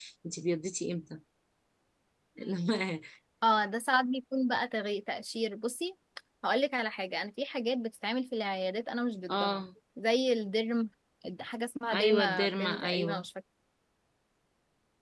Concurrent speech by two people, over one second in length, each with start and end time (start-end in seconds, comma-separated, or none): 11.9-13.2